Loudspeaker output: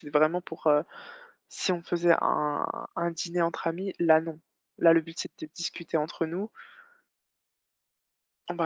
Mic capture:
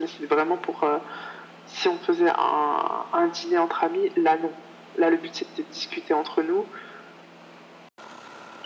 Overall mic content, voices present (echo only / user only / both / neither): echo only